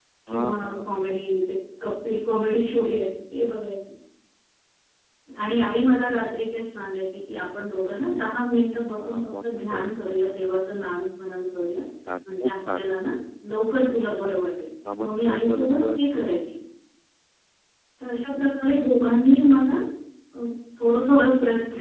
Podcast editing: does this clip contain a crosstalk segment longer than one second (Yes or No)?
Yes